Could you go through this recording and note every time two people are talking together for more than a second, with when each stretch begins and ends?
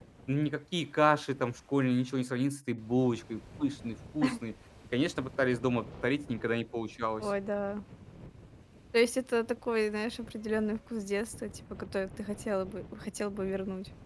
none

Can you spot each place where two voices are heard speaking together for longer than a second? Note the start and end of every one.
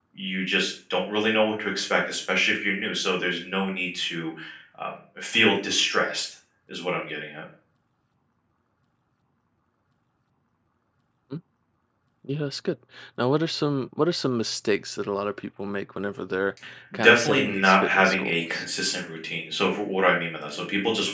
17.0-18.6

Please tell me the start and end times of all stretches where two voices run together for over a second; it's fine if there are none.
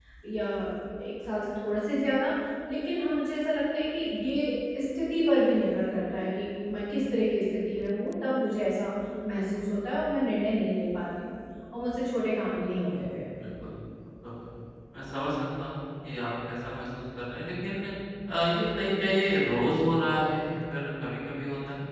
none

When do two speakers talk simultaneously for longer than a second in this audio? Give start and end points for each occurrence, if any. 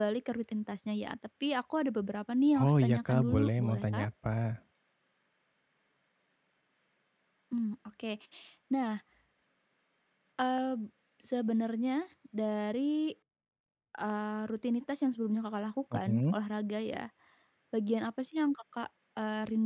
2.6-4.0

